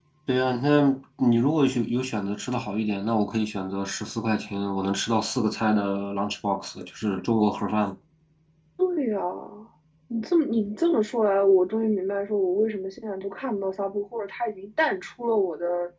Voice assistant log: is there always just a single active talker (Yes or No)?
Yes